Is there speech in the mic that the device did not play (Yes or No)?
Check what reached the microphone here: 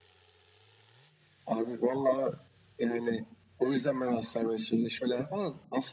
No